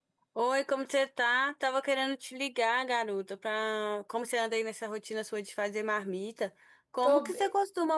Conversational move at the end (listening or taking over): listening